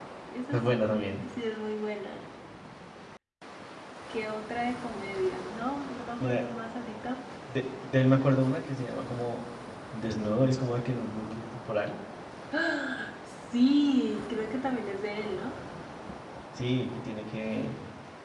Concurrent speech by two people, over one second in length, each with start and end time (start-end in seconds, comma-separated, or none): none